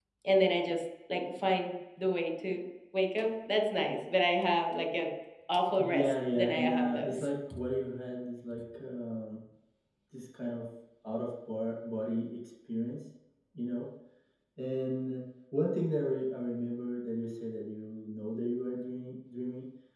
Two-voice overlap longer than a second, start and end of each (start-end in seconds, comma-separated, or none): 5.8-7.3